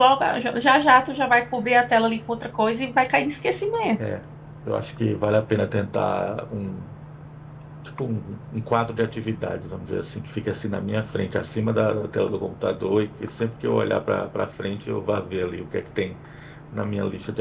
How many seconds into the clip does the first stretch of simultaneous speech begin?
none

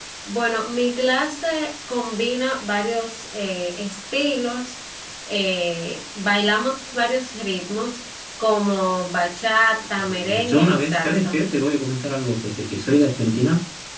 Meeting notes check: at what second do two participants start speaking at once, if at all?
10 s

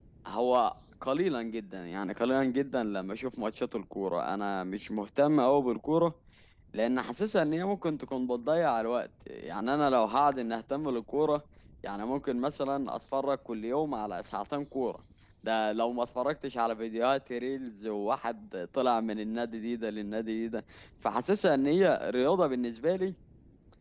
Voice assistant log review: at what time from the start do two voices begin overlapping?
none

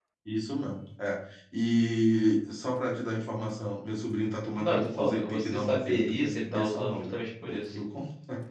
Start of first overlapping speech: 5 s

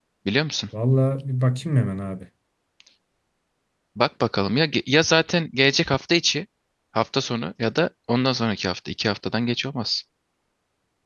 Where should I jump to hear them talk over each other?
none

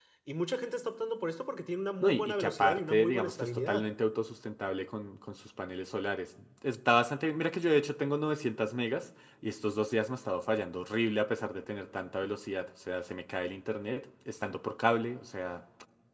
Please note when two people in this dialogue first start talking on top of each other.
2 s

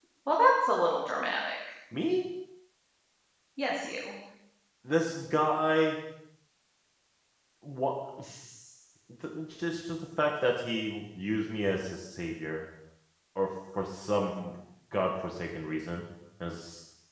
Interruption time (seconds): none

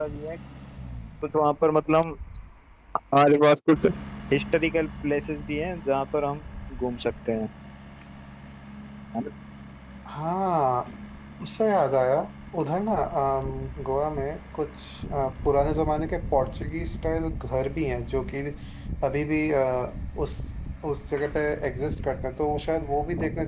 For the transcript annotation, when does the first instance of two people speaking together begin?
none

